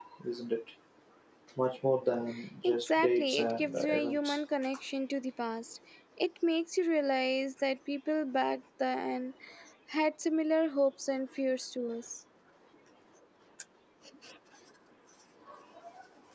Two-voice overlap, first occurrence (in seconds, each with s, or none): 2.6 s